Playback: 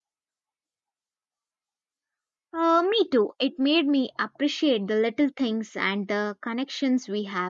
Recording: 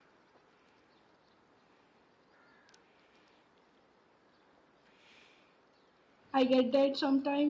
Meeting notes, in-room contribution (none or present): present